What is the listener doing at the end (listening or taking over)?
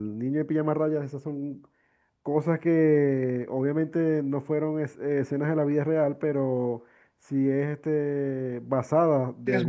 listening